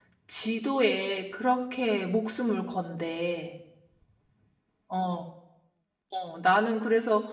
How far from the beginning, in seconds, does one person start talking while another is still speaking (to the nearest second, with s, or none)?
none